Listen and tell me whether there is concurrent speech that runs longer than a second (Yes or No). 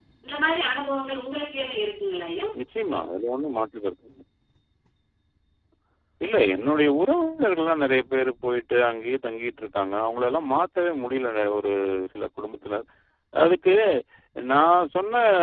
No